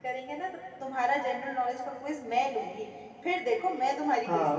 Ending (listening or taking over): taking over